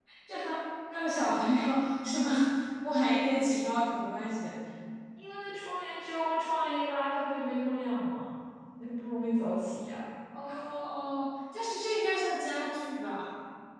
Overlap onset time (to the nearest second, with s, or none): none